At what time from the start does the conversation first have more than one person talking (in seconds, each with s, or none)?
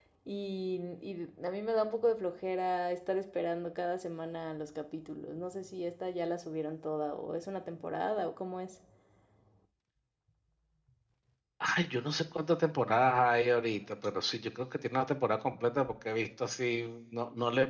none